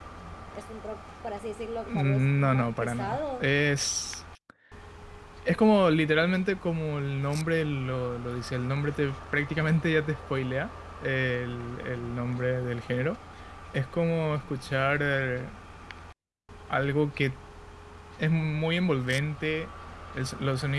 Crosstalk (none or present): present